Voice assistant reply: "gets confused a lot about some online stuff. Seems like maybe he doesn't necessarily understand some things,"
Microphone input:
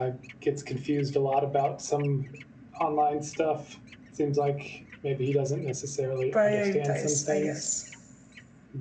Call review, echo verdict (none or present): present